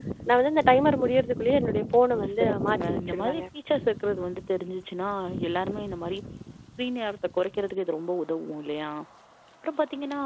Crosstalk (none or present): present